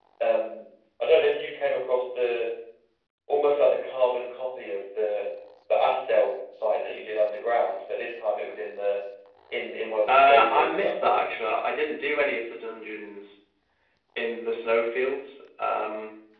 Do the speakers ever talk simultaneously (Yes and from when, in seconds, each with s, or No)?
Yes, from 10.1 s